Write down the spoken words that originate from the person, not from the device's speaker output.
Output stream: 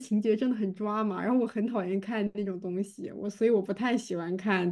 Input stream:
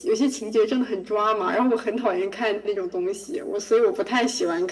none

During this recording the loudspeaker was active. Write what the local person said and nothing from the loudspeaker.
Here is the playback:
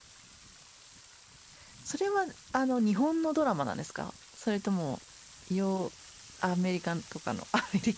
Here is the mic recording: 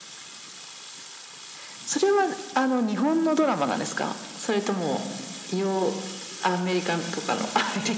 none

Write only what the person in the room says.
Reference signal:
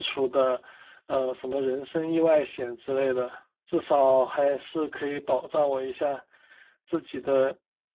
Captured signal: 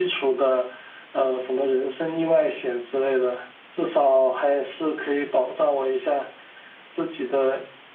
none

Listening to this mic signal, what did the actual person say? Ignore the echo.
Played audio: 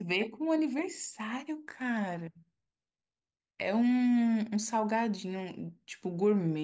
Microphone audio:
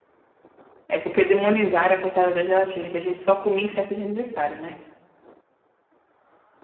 É porque demonizaram a coitada da gelatina, que a gente só comia em festa de aniversário, né?

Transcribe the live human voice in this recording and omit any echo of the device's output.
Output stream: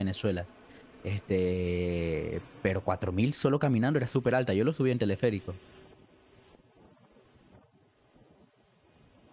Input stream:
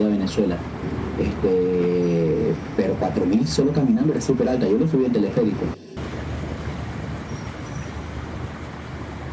none

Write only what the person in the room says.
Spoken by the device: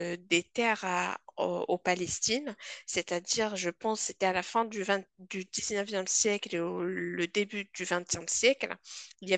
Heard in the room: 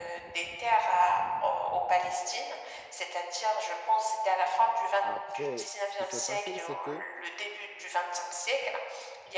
après, ce qui s'est passé, c'est que

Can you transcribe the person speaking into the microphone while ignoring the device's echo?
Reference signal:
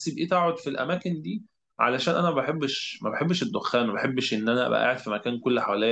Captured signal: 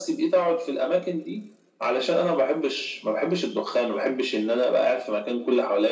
none

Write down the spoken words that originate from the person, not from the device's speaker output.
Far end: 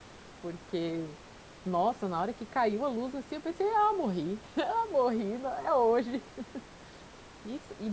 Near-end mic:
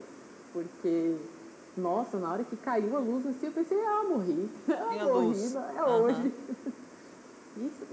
Tinha luz. Aham.

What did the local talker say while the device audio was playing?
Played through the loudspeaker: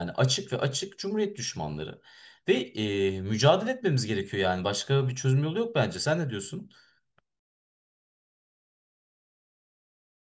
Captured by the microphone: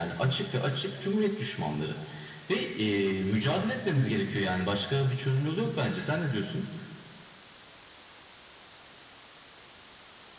Hı hı.

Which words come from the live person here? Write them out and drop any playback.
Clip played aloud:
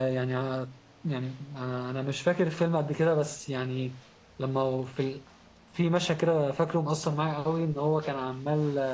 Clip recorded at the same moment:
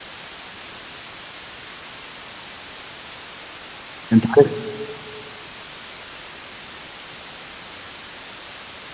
أنت عارف

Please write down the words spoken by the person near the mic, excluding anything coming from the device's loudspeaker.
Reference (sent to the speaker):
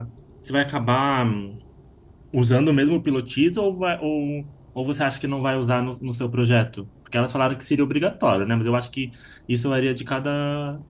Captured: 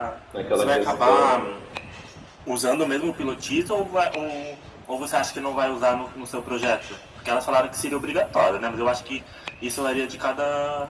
naquela questão.

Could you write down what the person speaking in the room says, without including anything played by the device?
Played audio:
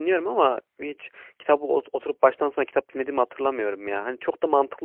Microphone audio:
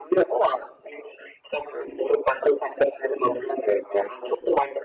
none

